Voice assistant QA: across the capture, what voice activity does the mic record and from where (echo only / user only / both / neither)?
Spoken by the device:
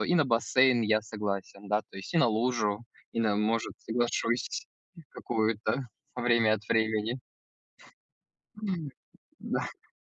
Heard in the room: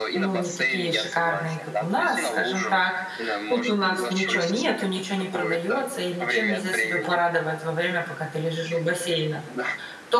both